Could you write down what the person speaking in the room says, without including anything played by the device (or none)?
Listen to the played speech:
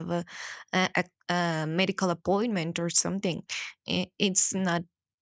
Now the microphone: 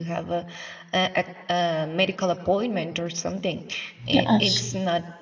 Yes.